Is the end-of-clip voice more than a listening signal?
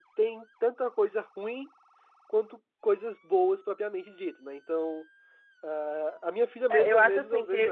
Yes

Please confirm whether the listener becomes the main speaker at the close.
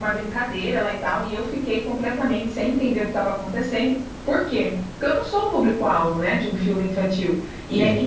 No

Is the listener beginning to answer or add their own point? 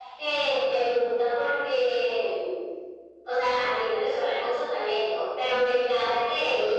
No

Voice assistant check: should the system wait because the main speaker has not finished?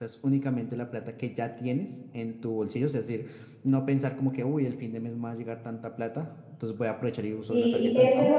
No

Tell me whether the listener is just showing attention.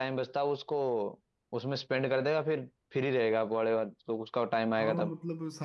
No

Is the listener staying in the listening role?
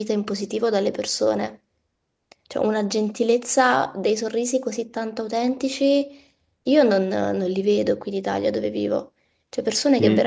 Yes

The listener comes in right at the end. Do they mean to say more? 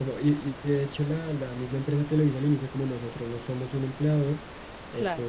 No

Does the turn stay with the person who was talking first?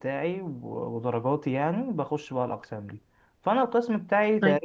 Yes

